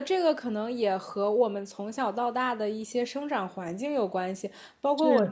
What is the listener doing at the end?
listening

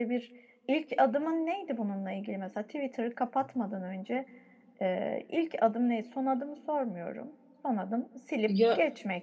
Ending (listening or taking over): listening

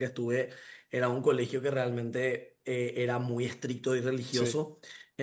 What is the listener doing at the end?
listening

